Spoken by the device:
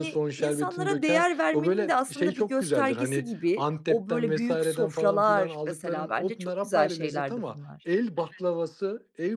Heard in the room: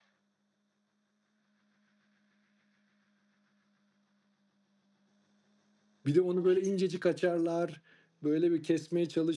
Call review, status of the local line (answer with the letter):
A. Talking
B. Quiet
A